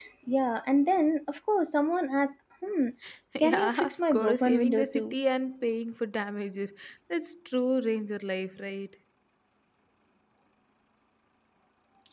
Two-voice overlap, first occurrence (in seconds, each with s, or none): 3.4 s